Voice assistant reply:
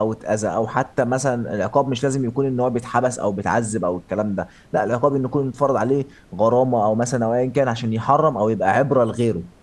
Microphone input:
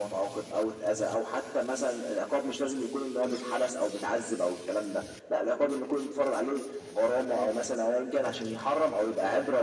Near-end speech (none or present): none